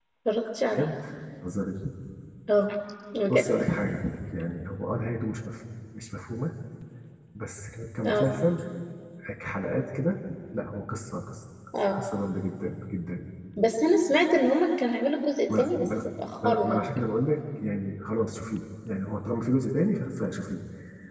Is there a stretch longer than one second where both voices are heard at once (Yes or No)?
No